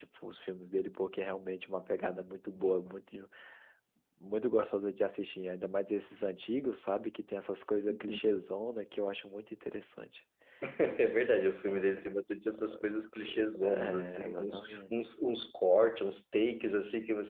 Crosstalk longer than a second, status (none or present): present